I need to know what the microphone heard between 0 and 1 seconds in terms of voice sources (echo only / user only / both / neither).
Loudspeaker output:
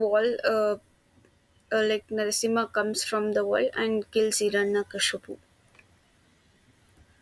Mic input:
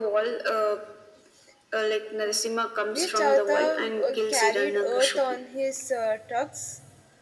echo only